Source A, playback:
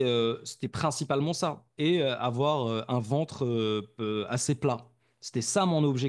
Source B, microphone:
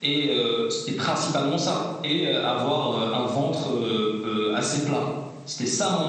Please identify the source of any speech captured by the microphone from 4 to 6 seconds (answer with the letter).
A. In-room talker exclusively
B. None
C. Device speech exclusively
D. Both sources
C